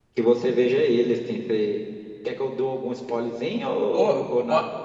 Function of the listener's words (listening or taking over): taking over